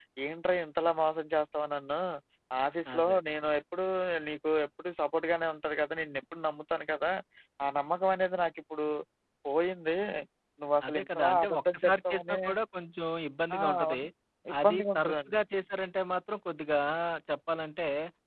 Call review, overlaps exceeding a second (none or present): present